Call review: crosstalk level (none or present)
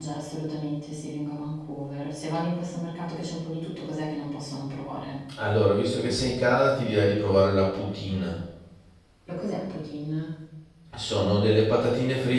none